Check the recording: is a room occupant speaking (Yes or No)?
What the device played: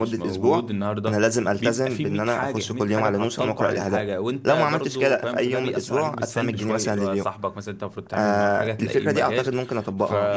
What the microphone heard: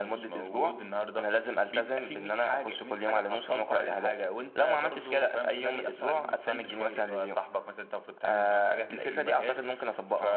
No